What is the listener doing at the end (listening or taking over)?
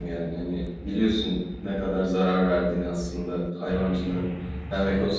listening